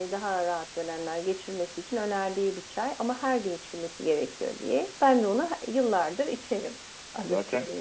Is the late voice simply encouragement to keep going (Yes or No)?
No